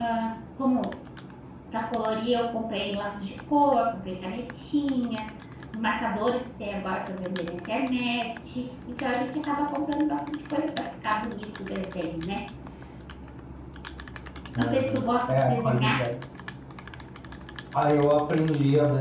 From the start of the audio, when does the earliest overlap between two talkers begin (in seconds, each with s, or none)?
14.6 s